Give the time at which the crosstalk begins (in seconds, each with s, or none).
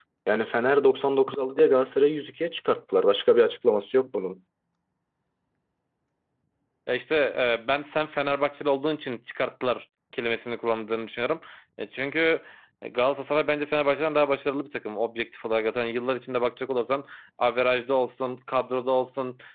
none